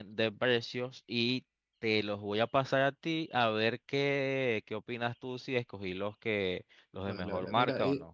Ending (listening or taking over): taking over